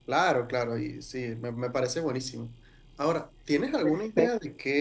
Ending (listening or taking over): listening